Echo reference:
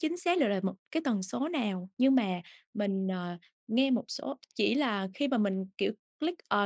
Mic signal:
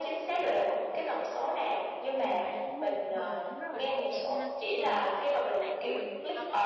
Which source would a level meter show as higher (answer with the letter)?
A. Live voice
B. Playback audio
B